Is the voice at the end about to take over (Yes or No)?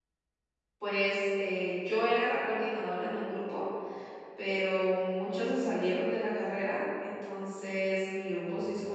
No